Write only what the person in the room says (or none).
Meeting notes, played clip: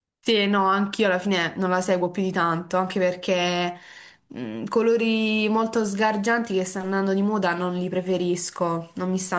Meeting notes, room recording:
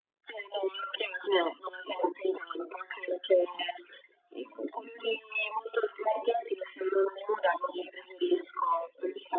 none